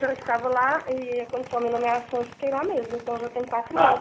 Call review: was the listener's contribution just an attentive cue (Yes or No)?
No